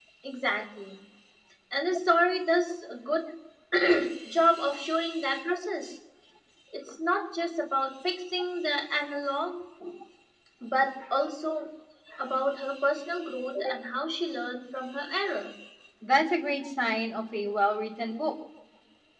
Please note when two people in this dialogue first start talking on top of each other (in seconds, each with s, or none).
none